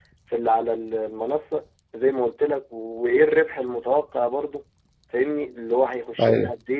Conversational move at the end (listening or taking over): listening